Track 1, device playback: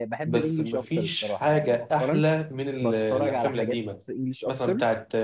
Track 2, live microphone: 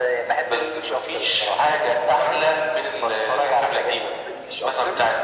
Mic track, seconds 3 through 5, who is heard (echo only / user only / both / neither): echo only